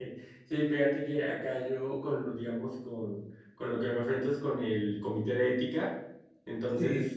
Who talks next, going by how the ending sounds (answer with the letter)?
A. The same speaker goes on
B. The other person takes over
A